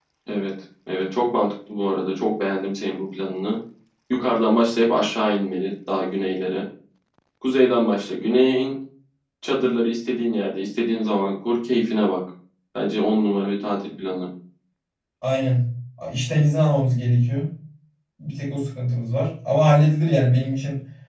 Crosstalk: none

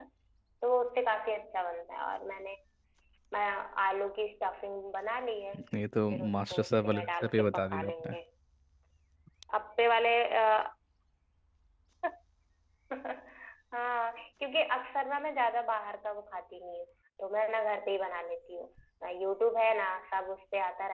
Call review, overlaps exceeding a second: present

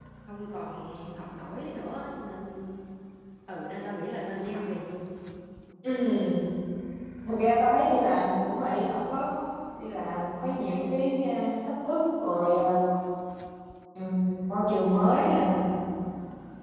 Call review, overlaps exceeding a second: none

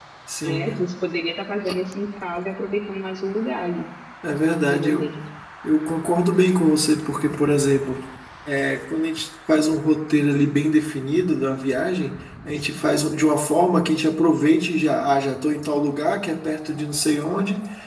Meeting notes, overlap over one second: none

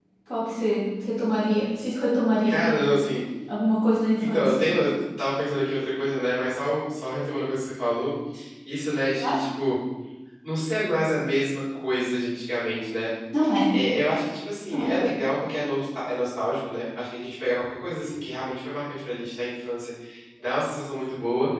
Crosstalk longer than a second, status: none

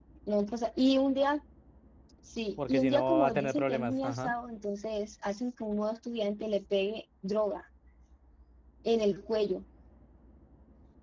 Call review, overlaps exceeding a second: present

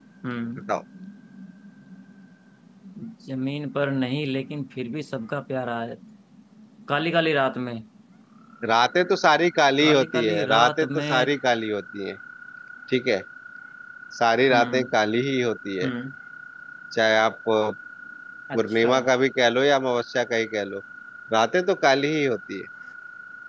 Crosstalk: present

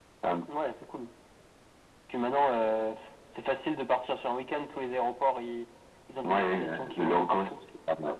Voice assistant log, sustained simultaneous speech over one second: present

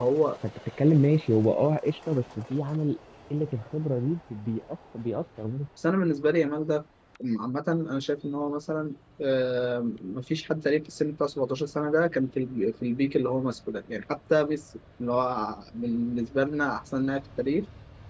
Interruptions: none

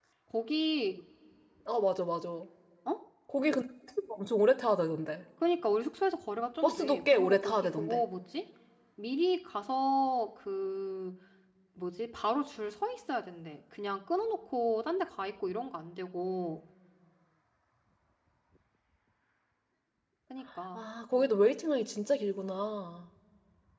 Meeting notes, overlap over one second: present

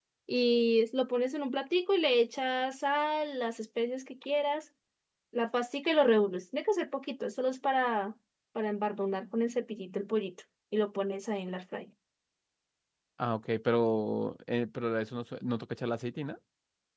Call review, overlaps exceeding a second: none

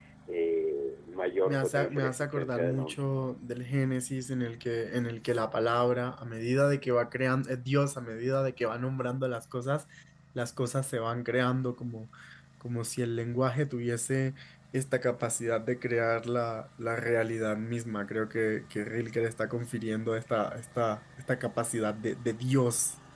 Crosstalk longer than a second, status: present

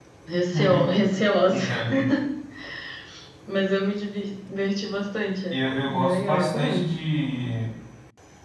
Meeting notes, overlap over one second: present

